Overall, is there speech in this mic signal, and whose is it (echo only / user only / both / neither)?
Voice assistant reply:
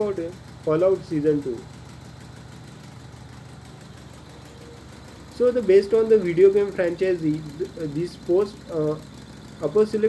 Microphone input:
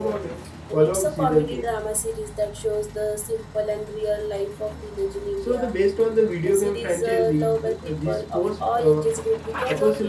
both